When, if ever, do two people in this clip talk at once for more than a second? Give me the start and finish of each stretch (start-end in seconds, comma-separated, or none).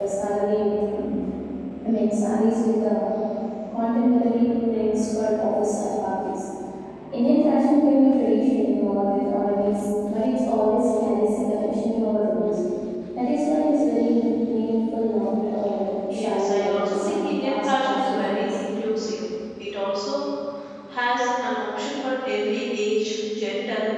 16.1-18.4